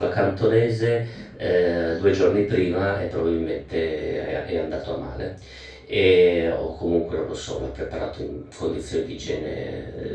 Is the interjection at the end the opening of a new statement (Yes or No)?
No